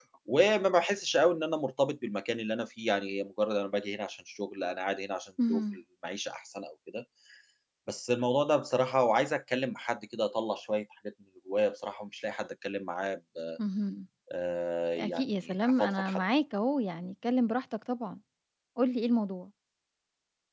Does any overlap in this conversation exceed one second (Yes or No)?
Yes